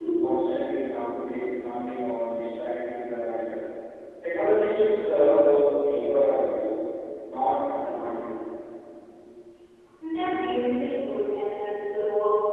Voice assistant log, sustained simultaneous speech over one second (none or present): none